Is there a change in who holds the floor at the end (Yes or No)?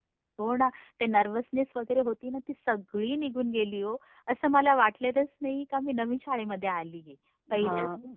No